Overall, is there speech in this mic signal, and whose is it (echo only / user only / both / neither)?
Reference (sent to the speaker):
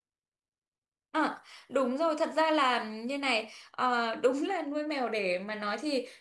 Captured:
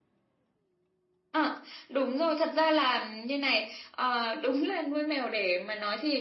echo only